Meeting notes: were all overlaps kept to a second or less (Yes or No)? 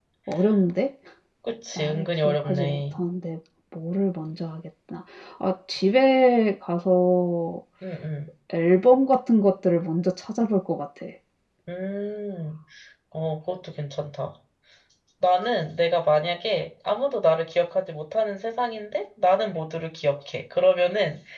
No